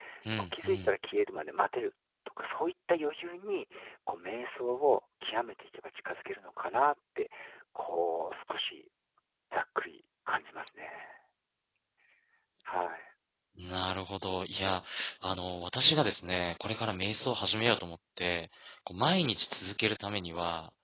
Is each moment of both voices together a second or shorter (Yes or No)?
Yes